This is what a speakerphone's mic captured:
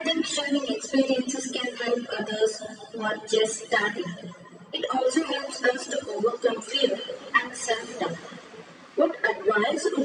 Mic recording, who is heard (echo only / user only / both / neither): echo only